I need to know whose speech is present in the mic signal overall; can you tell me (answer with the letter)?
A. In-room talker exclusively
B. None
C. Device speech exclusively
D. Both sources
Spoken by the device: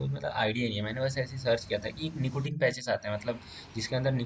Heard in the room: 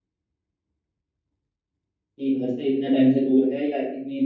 A